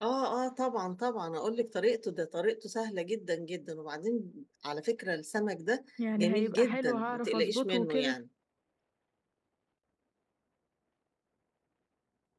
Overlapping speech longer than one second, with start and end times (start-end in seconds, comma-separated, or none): 6.2-8.2